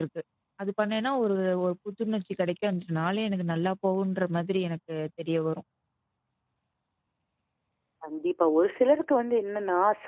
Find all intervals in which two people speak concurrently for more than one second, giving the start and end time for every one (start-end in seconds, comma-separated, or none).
none